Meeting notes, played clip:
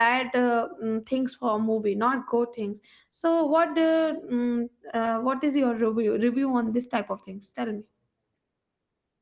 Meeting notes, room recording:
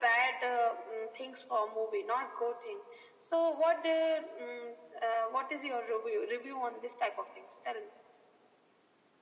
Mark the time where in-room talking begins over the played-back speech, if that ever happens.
none

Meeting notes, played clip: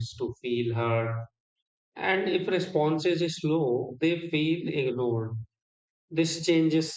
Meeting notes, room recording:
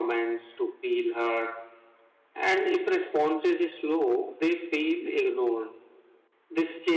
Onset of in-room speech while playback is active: none

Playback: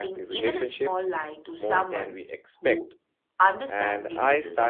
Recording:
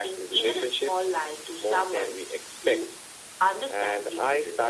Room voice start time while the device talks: none

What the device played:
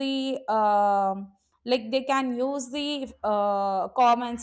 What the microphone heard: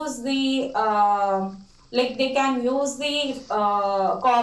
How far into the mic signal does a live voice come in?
none

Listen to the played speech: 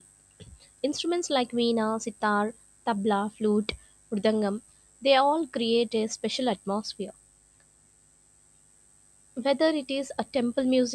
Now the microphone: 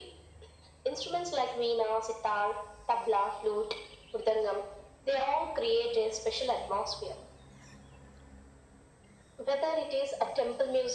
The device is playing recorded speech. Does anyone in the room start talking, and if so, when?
none

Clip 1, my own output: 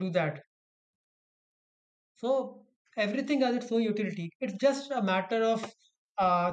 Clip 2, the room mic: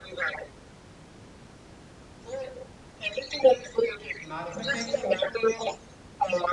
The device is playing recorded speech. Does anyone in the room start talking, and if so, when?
4.2 s

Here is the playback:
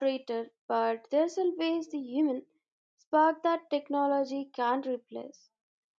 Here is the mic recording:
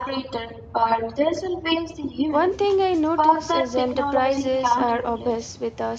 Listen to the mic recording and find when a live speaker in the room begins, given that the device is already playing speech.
2.3 s

